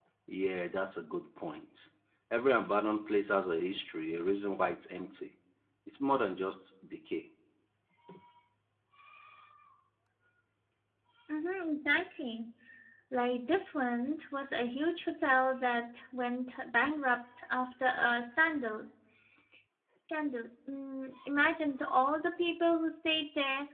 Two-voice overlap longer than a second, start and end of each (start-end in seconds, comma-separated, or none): none